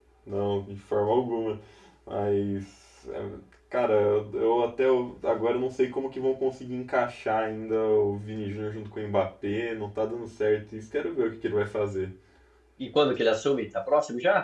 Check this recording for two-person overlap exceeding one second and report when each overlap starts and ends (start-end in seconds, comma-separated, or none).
none